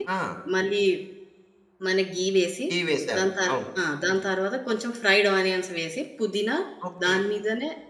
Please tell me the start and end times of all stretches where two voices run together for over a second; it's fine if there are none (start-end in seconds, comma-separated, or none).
none